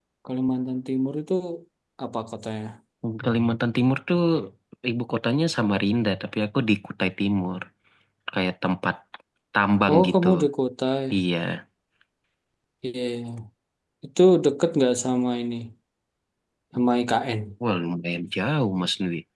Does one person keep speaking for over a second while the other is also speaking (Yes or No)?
No